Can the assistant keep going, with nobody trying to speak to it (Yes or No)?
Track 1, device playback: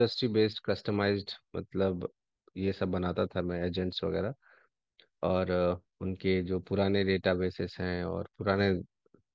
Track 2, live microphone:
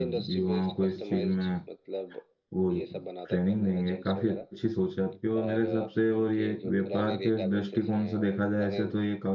No